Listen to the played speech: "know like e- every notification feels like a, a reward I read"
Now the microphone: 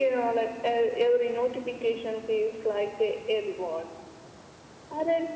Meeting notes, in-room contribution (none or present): none